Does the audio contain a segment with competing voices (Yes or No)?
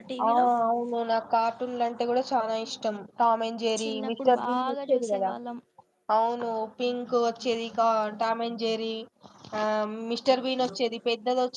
Yes